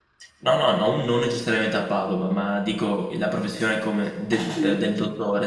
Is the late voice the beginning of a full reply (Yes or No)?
No